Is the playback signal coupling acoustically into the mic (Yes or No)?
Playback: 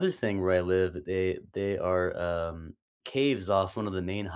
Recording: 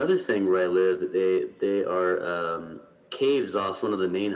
Yes